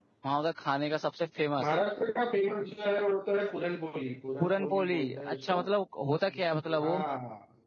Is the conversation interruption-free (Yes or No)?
No